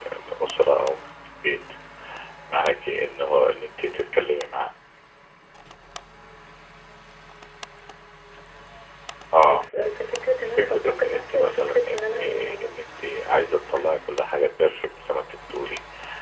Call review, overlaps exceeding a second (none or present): present